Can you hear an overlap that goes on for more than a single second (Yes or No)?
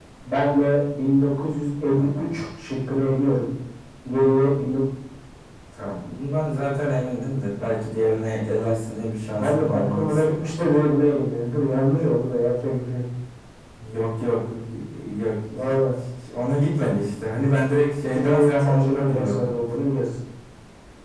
Yes